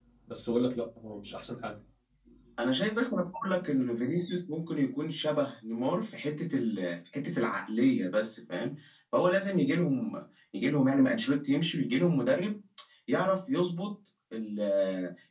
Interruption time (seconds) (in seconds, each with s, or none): none